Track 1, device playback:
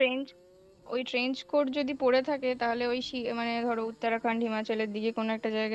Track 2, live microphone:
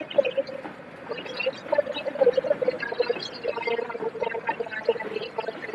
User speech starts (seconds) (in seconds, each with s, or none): none